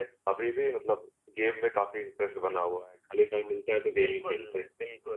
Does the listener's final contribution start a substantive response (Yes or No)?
Yes